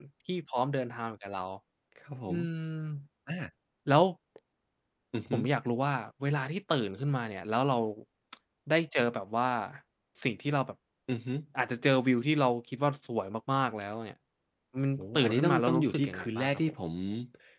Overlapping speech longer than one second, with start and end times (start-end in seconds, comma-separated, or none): 15.0-16.5